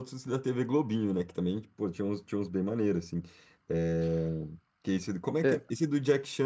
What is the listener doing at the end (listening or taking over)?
listening